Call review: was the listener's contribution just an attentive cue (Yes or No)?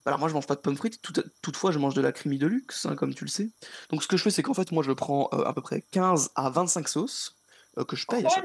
No